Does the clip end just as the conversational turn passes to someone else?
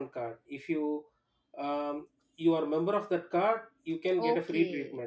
Yes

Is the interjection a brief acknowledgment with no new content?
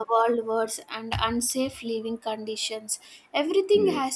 Yes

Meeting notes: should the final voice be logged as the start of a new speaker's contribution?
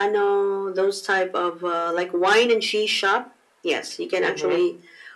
No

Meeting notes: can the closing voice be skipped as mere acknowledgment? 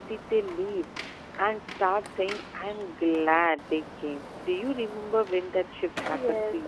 No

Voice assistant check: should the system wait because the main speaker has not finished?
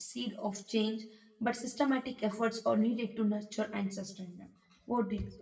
No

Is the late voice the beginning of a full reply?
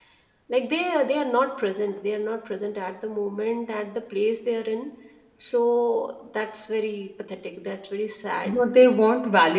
Yes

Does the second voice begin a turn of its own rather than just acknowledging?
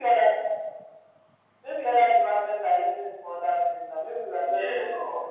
Yes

